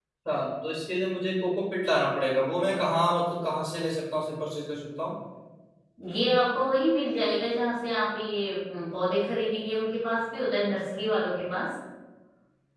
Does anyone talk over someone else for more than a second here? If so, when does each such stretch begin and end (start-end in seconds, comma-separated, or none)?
none